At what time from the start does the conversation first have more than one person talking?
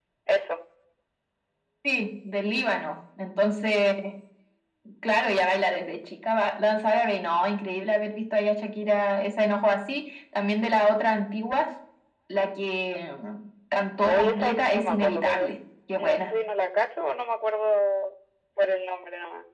14.0 s

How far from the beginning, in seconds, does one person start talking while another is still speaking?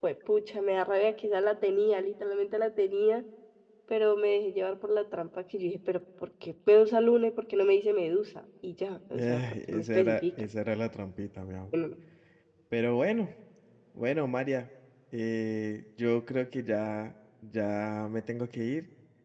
9.1 s

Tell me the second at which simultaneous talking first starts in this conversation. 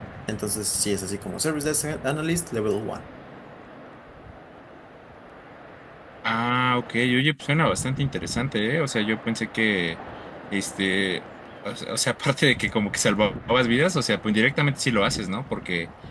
none

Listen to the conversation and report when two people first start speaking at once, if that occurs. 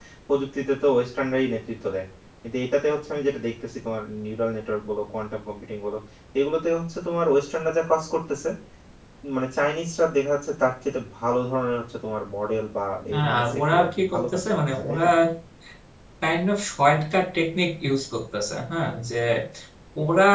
13.1 s

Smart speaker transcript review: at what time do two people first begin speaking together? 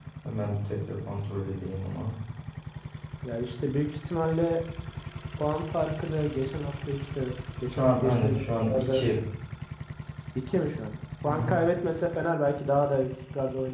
7.7 s

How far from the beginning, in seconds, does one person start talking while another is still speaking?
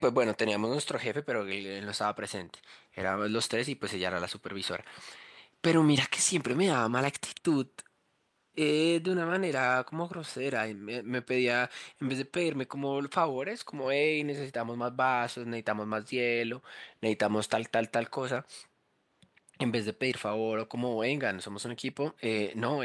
none

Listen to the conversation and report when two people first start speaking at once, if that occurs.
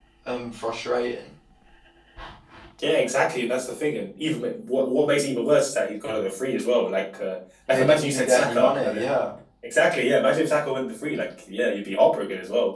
7.7 s

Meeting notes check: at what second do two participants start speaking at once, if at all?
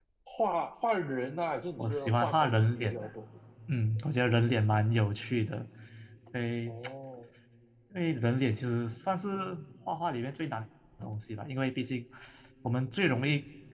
1.8 s

